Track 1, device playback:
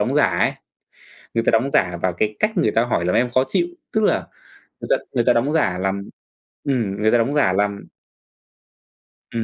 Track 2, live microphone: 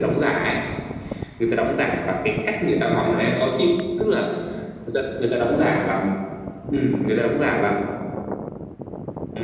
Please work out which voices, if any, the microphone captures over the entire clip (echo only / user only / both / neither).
echo only